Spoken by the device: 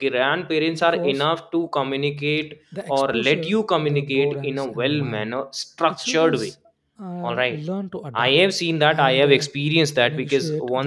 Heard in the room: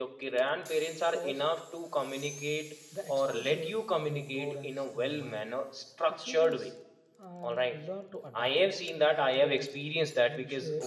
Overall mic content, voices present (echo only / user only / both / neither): echo only